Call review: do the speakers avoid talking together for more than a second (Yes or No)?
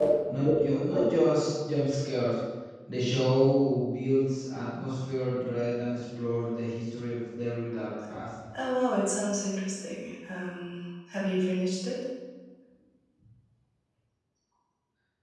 Yes